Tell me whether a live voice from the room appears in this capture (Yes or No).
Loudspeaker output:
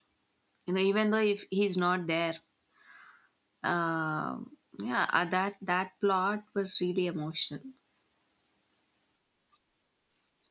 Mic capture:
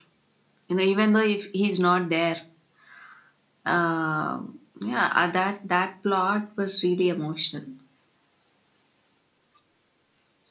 No